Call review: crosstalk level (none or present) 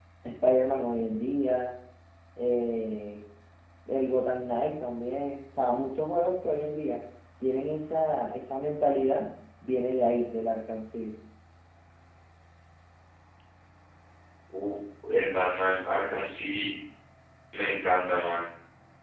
none